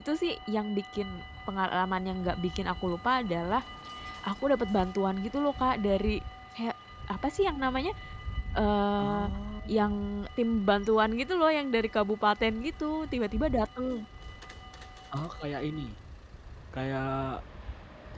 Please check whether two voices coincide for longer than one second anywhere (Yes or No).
No